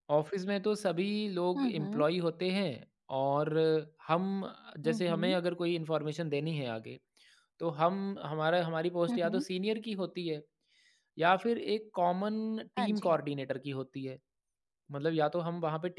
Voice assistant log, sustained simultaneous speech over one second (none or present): none